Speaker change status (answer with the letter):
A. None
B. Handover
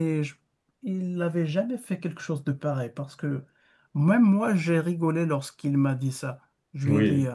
A